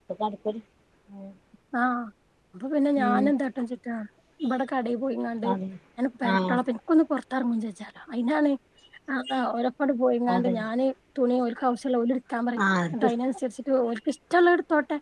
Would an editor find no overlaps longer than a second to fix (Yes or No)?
Yes